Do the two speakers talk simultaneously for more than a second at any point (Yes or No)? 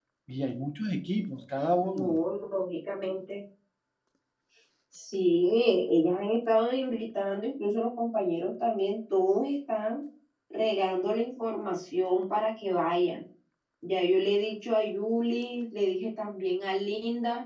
No